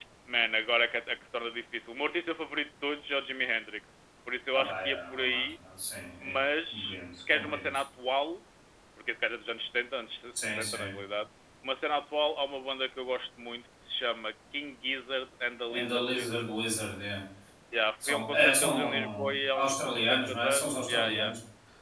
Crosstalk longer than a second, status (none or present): present